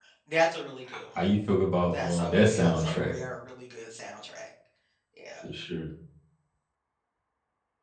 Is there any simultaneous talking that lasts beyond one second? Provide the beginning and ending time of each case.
1.9-3.1

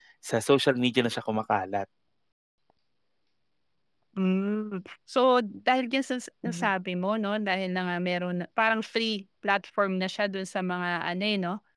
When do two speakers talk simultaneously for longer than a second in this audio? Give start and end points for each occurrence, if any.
none

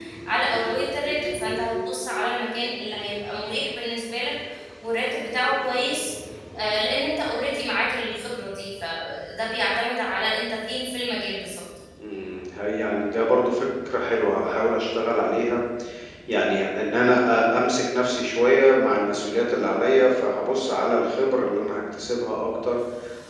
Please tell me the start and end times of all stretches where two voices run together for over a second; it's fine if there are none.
none

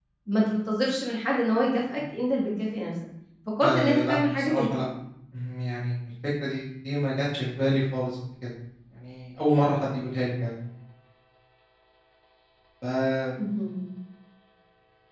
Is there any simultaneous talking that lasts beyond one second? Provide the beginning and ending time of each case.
3.6-4.8

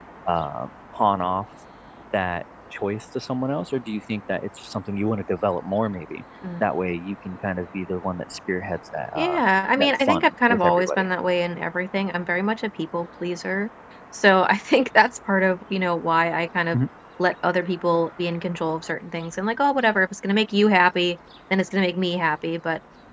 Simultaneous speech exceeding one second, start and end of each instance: 9.8-11.1

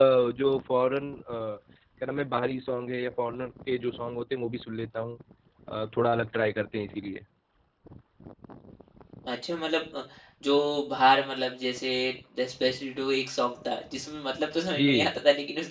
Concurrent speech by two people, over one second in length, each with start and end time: none

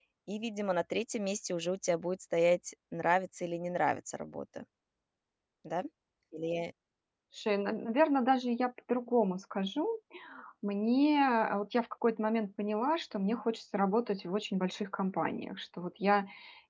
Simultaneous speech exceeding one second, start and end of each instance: none

